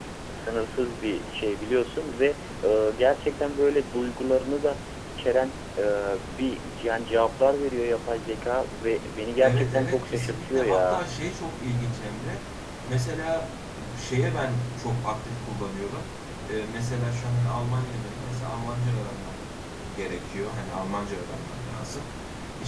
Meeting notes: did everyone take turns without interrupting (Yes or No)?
No